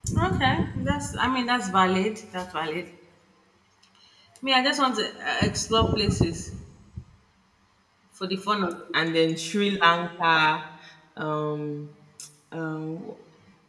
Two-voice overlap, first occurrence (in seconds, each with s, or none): none